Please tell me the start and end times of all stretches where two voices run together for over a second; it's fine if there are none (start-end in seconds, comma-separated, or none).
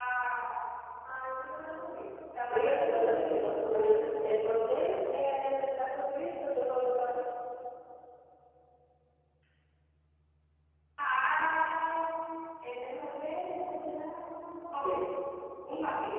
2.5-4.3